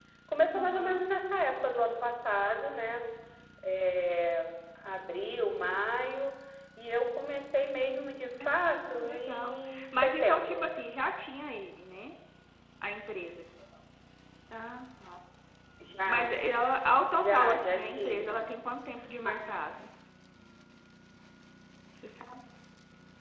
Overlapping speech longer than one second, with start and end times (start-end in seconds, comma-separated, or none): 8.4-10.7, 17.1-18.4